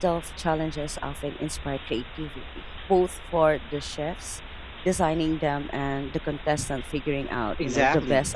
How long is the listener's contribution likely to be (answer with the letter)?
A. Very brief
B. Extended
B